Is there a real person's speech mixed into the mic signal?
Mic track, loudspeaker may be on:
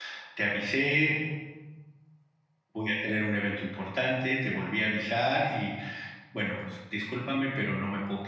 Yes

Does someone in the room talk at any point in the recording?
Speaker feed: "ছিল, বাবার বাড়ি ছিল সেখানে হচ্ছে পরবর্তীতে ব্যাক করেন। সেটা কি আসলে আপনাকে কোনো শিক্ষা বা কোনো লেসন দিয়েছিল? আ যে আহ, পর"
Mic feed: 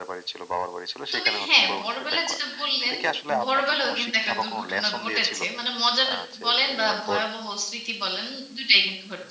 Yes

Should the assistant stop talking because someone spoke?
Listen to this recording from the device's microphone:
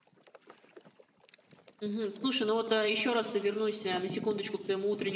No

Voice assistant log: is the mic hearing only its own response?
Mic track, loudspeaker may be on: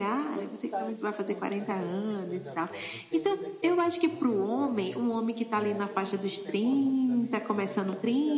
No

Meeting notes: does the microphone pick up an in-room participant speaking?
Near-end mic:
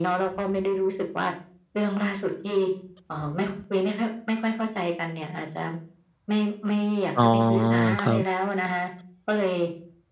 Yes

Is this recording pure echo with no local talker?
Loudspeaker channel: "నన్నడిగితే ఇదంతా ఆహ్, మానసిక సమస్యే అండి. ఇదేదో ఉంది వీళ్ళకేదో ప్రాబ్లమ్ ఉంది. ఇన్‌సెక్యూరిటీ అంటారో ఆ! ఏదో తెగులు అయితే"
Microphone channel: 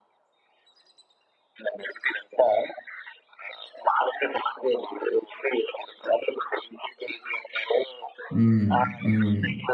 No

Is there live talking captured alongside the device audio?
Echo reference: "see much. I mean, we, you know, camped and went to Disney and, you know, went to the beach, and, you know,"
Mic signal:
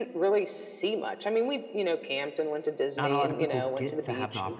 Yes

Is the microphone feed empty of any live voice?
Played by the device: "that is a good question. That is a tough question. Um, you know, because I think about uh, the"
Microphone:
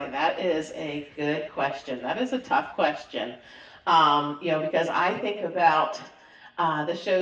Yes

